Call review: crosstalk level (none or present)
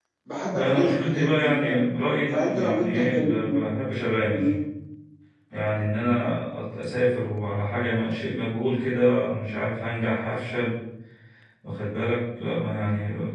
present